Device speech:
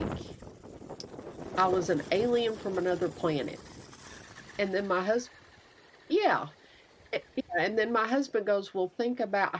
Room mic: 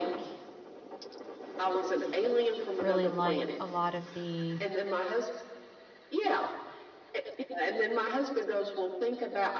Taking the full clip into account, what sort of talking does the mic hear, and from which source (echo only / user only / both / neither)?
both